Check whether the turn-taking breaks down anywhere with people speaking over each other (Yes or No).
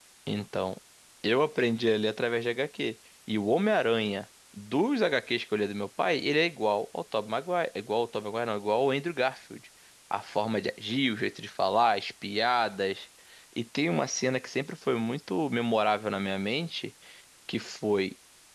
No